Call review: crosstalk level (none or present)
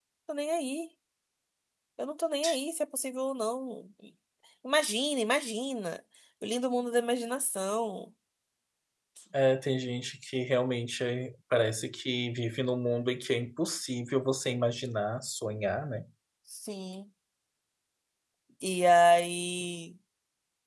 none